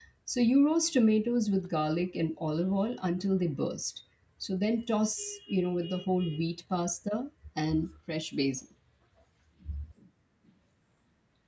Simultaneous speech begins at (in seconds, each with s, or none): none